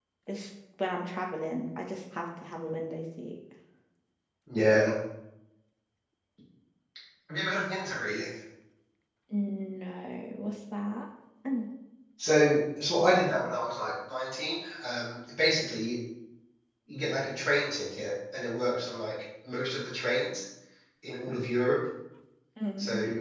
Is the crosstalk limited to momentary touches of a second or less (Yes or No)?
Yes